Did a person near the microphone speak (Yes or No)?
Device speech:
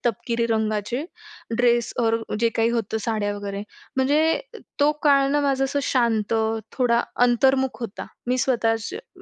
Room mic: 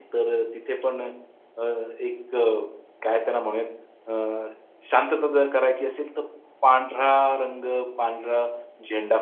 Yes